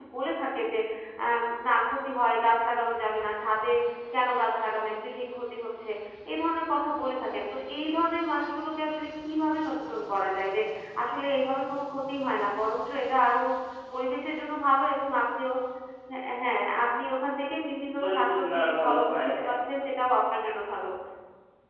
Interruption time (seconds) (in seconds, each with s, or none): 18.0 s